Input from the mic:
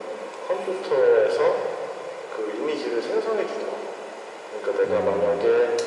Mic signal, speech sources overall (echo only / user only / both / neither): both